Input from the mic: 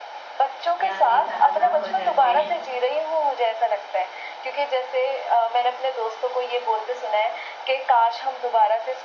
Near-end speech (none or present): present